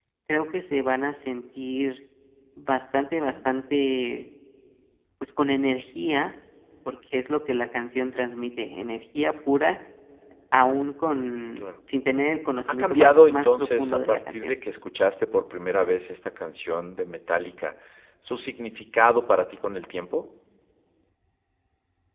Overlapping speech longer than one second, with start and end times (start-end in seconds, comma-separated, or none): 12.7-14.5